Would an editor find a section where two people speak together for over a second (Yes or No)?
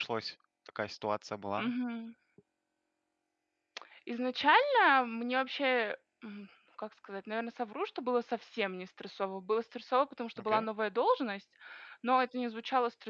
No